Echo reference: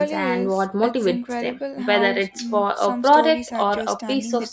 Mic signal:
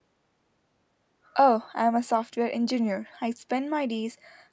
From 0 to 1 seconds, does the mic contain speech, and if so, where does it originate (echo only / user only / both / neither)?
neither